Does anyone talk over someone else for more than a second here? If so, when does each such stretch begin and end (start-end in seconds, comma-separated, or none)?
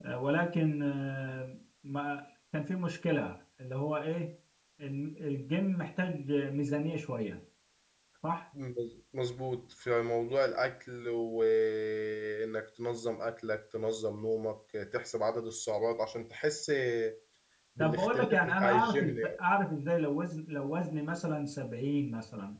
17.8-19.4